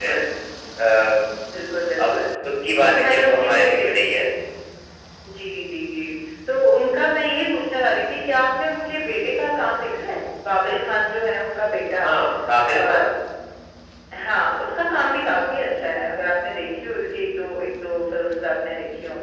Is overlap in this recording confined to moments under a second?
No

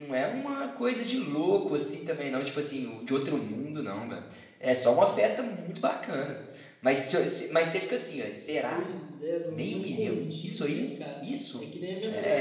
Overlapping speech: Yes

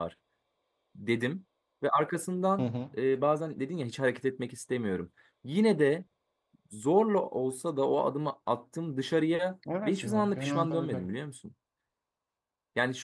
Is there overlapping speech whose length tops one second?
Yes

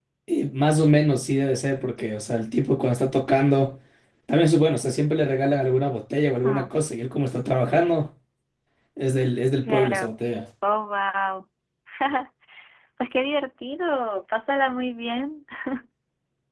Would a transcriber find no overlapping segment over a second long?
Yes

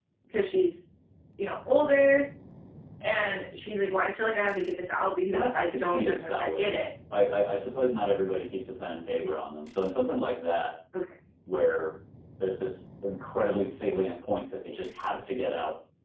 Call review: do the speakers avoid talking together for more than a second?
No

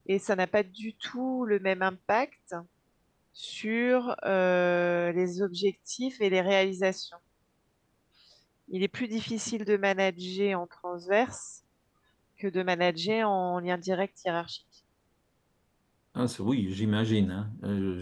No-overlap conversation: Yes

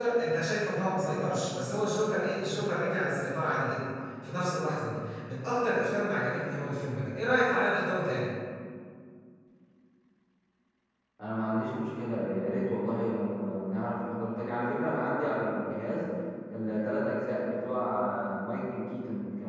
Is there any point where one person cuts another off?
No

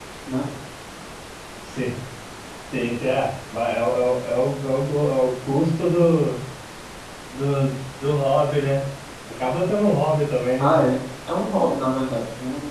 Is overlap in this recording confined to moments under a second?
Yes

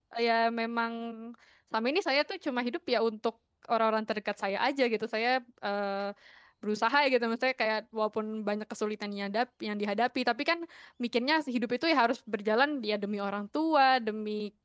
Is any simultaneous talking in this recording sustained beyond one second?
No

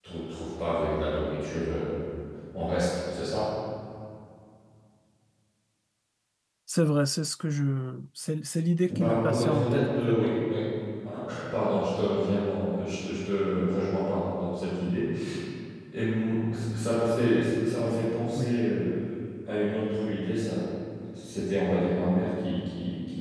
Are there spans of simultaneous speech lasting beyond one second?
Yes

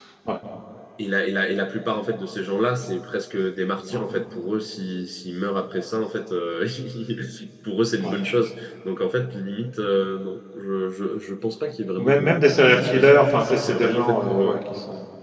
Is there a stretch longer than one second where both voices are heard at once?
Yes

